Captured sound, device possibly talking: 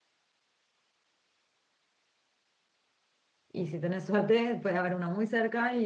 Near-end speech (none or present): present